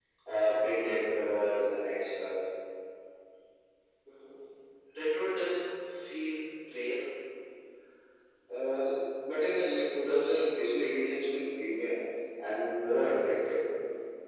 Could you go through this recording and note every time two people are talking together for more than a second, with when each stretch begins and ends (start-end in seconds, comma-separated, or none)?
none